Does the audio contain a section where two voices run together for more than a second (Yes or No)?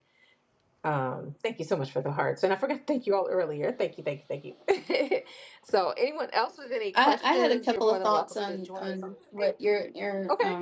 Yes